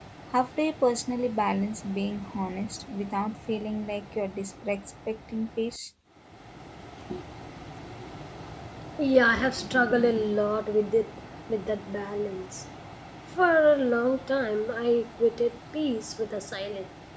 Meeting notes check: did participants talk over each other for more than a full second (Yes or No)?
No